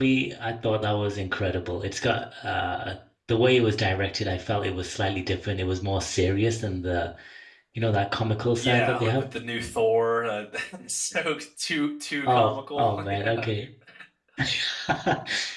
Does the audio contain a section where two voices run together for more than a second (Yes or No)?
Yes